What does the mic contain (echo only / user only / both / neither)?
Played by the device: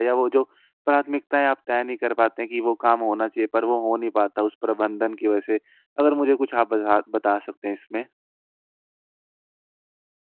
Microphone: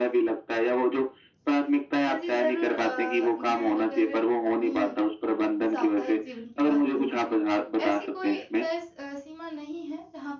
both